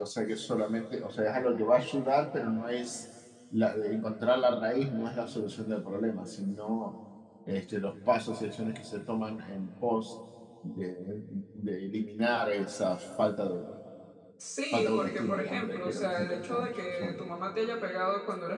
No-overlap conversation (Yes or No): No